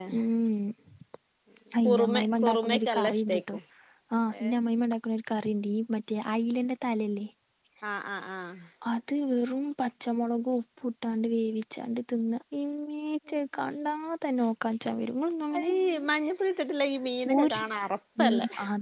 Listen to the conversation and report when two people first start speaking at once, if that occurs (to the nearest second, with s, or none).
2 s